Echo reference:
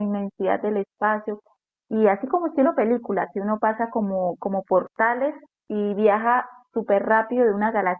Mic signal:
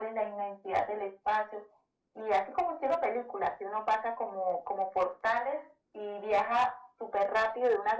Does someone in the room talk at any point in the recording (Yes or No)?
No